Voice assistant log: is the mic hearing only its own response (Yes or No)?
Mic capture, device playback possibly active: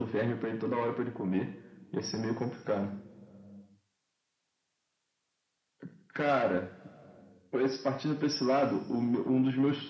Yes